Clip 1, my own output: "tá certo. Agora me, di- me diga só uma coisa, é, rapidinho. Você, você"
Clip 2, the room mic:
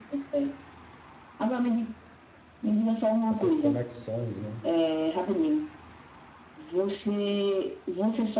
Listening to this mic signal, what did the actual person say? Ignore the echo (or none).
essas conexões, né?